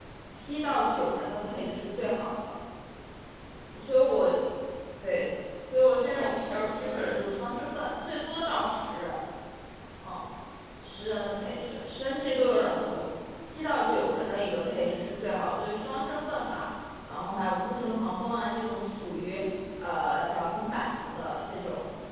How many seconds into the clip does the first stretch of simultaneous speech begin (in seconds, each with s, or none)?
5.8 s